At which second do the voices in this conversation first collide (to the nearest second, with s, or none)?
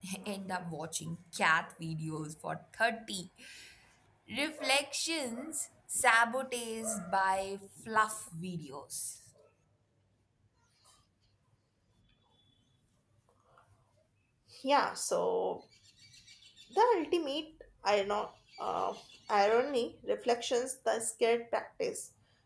none